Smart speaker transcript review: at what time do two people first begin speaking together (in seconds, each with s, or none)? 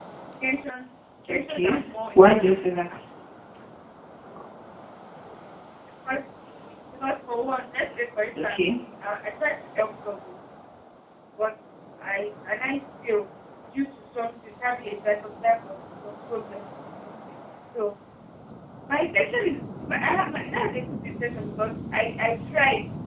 1.3 s